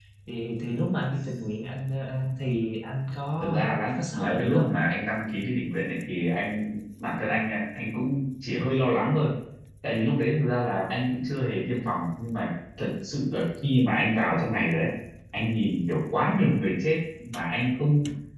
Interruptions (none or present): present